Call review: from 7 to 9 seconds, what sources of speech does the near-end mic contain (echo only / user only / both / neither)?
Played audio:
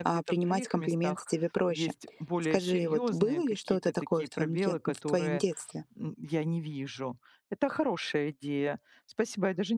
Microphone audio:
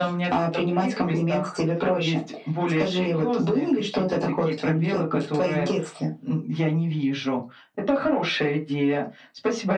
echo only